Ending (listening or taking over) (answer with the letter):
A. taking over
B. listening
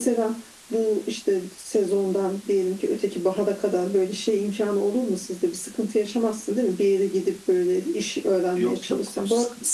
A